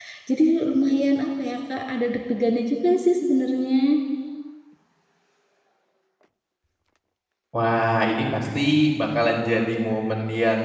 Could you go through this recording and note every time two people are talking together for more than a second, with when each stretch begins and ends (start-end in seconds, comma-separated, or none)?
none